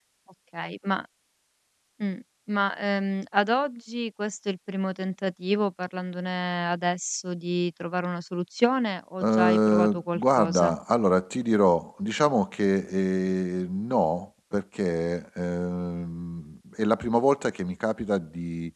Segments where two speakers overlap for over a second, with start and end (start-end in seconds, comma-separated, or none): 9.2-10.8